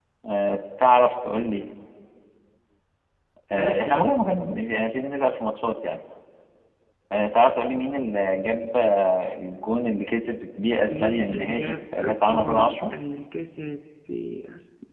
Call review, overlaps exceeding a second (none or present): present